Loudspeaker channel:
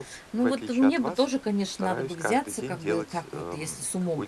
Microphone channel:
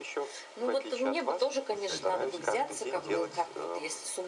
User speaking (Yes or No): Yes